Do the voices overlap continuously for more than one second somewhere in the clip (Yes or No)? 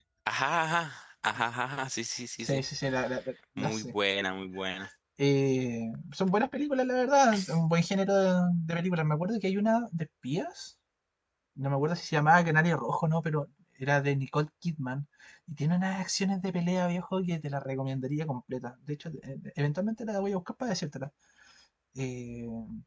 No